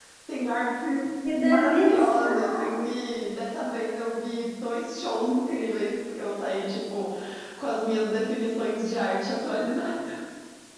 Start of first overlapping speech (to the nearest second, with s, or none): 1 s